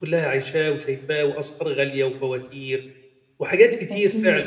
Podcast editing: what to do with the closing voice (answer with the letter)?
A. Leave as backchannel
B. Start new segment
A